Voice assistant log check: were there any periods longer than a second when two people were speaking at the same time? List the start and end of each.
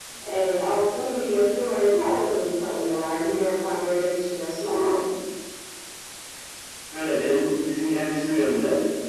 none

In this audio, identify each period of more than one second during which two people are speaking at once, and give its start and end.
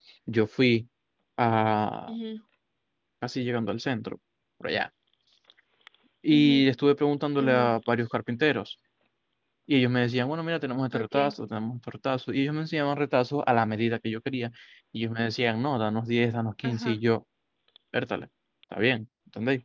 none

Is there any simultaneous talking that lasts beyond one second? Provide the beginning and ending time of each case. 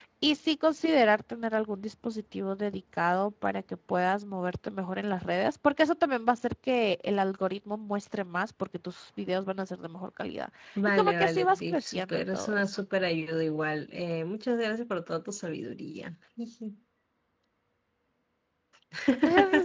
10.9-12.8

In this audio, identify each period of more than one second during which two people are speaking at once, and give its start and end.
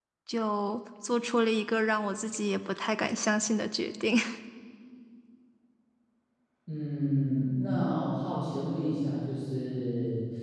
none

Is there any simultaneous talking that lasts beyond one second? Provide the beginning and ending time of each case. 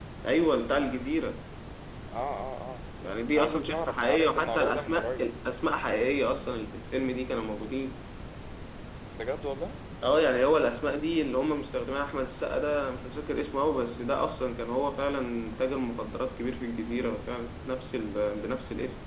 3.4-5.2

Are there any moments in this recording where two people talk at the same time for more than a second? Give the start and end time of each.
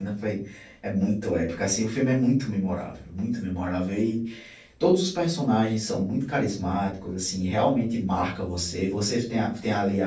none

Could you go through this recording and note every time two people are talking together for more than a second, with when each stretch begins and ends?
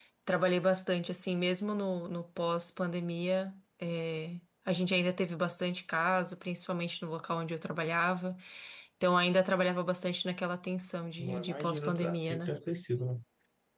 11.2-12.5

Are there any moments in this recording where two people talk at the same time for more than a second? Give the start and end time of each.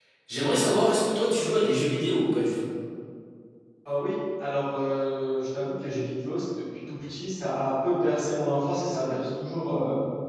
none

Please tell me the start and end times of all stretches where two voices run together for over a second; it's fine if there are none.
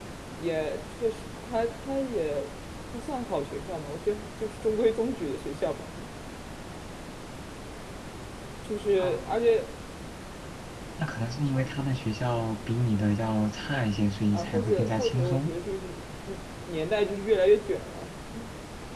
14.3-15.5

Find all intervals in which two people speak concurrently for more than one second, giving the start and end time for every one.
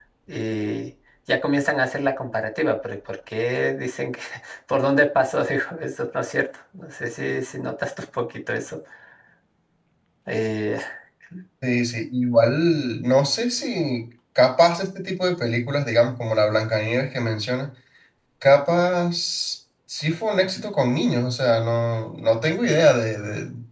none

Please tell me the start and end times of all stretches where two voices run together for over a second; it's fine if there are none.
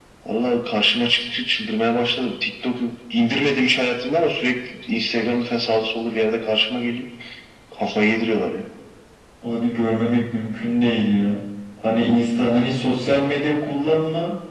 none

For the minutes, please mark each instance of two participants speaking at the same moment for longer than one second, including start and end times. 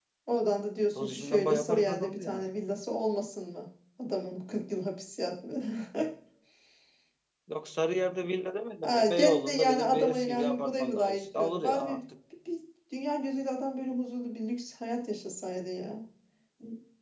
0.9-2.5, 8.8-12.0

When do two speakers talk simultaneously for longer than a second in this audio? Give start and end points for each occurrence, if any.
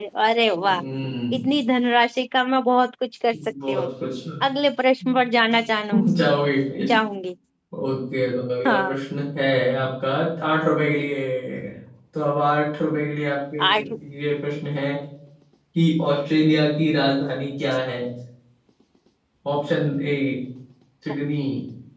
none

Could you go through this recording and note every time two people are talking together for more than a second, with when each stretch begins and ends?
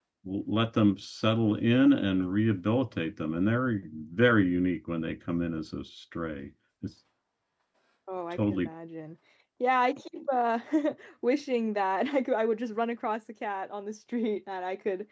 none

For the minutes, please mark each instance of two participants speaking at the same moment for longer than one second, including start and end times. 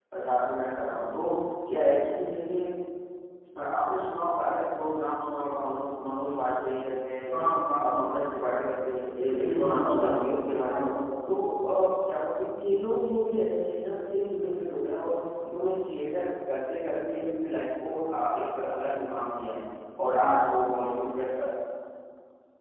9.4-10.8

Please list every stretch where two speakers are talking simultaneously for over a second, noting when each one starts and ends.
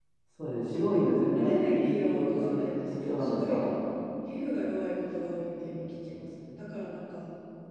1.4-3.6

